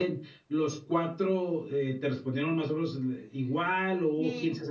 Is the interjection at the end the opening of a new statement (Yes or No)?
Yes